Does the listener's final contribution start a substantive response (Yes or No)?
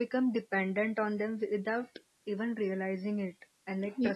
No